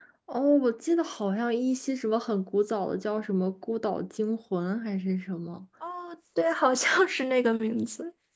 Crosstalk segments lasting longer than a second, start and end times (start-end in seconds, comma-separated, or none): none